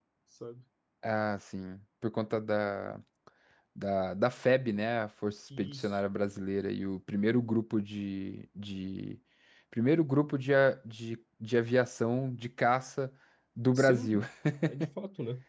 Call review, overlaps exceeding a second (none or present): none